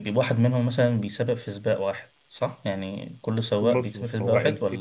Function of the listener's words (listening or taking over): taking over